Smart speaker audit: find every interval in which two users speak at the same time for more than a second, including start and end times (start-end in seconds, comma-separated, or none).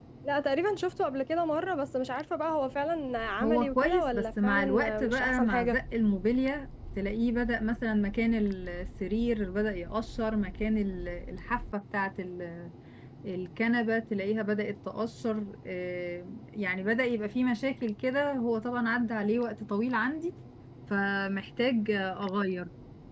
3.4-5.8